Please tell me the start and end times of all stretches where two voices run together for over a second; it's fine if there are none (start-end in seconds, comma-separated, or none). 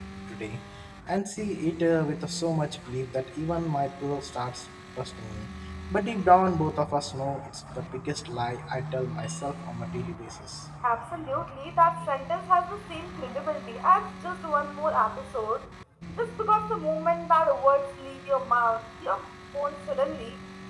none